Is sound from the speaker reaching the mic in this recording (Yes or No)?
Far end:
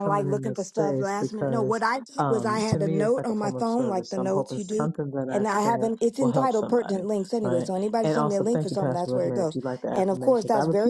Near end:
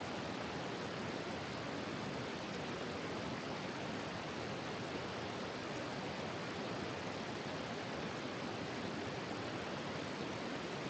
No